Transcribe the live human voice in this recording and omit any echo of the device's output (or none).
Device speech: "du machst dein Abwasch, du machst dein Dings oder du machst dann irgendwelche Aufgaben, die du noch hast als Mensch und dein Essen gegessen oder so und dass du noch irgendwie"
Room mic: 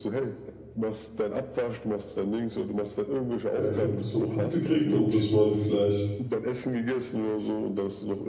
Ja, ich glaube, dass man Punkte kriegt und dass man vielleicht